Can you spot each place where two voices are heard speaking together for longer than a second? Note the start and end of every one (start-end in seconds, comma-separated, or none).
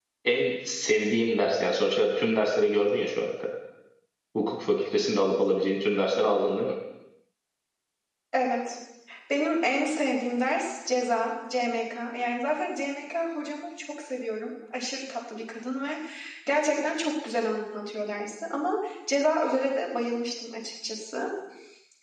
none